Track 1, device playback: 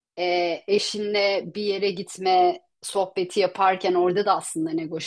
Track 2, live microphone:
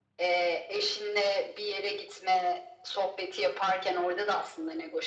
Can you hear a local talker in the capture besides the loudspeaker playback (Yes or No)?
No